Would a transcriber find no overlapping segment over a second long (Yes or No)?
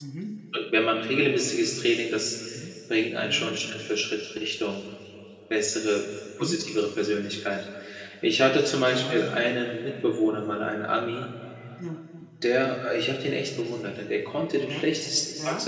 Yes